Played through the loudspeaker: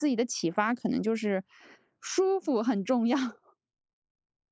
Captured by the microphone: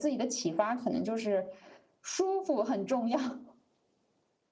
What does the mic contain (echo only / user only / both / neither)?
echo only